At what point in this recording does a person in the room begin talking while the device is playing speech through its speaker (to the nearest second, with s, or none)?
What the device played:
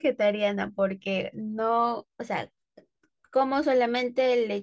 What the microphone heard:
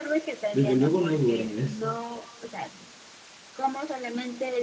1 s